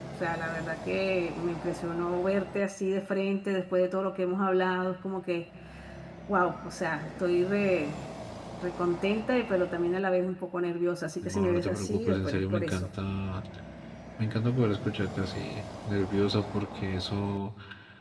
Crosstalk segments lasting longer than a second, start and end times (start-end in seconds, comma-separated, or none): 11.2-12.9